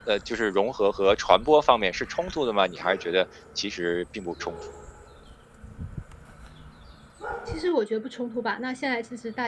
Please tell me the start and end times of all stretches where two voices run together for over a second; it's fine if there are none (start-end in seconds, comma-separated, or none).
none